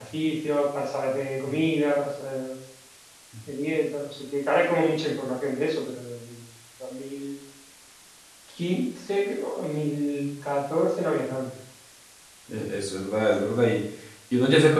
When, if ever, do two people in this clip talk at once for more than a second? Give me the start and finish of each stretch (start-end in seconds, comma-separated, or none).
none